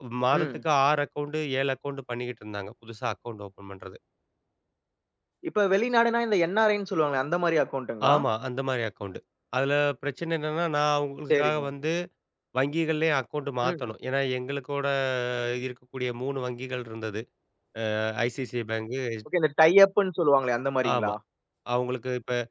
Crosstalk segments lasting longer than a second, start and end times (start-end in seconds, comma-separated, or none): none